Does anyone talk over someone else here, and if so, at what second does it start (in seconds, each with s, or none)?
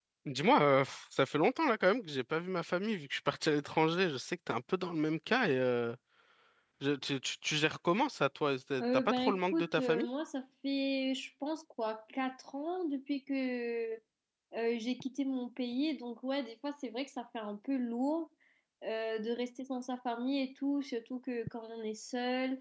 8.8 s